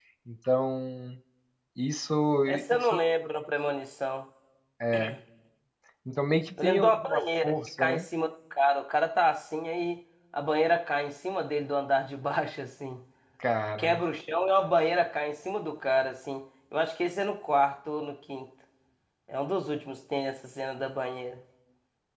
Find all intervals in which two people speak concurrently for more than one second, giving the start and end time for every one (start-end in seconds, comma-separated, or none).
6.6-8.0